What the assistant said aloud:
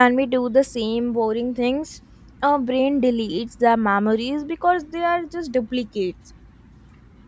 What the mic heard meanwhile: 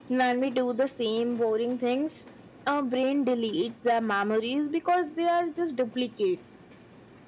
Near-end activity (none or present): none